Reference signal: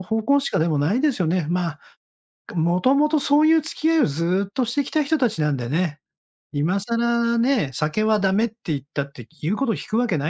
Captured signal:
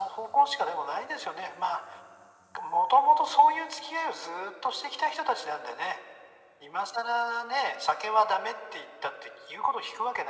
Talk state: echo only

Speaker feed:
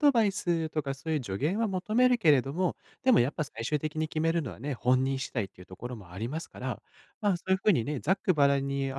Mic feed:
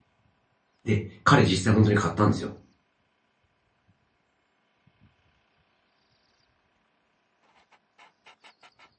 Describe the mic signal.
user only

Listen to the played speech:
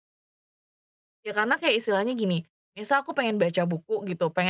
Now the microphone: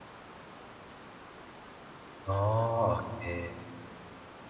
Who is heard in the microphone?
user only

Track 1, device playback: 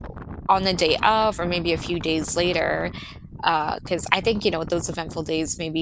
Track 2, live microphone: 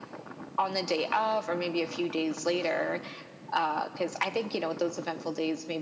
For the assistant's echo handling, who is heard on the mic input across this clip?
echo only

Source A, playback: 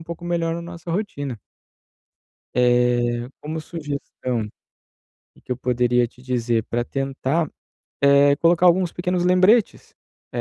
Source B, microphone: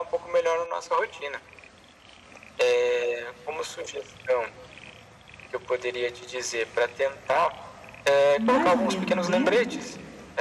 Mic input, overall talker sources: both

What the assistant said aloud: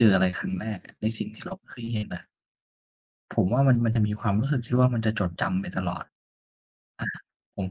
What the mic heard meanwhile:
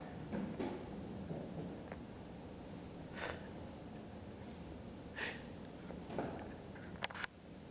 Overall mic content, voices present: neither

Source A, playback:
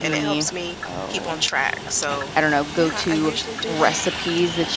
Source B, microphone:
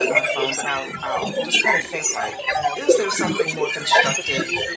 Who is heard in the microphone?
both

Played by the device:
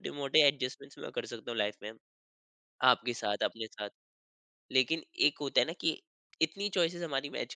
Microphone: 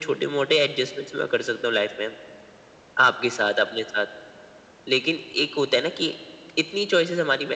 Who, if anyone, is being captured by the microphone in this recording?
echo only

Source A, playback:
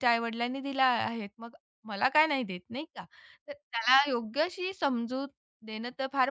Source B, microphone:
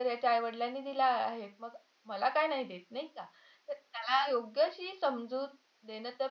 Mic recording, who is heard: echo only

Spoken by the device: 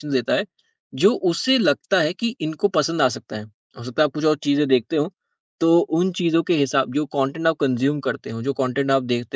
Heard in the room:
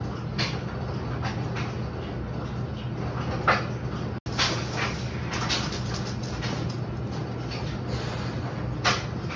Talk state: neither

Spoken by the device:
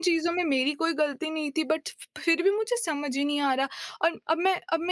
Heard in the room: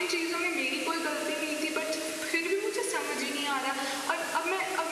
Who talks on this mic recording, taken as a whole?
echo only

